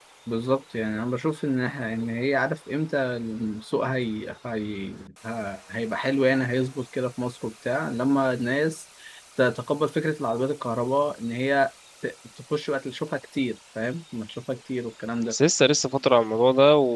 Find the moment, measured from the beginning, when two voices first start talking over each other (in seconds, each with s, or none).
none